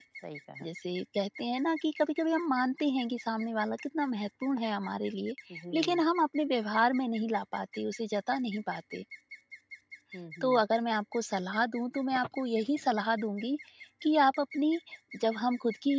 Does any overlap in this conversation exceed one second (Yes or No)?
No